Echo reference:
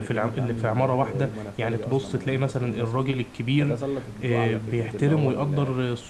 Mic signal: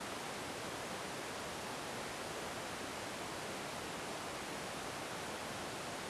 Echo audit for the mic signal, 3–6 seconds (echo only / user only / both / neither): neither